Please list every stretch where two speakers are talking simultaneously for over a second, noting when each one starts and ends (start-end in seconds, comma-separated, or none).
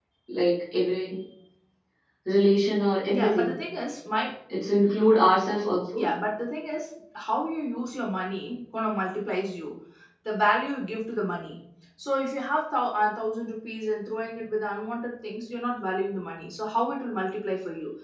none